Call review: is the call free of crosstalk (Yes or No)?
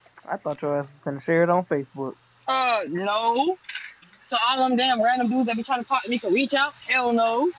Yes